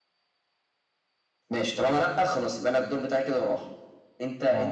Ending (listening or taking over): taking over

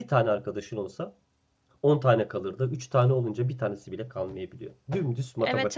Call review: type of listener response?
taking over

